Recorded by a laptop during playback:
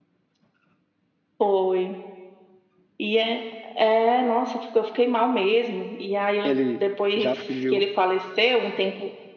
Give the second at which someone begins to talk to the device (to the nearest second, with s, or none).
6 s